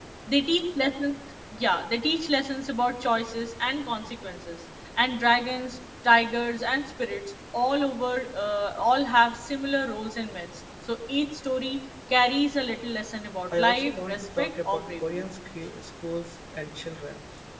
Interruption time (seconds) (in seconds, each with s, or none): 13.5 s